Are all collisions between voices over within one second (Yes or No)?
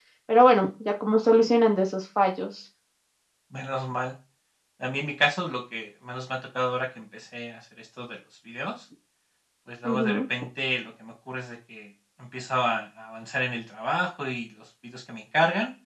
Yes